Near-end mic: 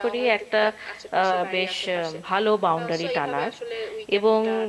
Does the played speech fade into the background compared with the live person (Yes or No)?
Yes